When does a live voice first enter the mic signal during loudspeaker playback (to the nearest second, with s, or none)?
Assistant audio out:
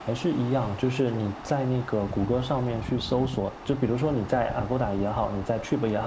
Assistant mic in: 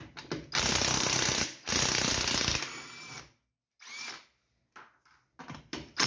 none